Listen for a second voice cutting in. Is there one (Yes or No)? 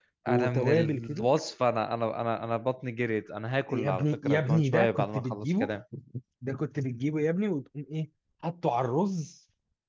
Yes